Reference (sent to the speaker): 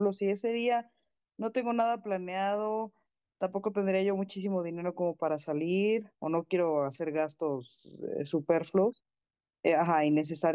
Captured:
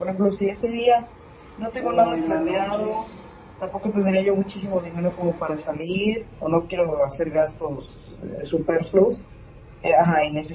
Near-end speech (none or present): present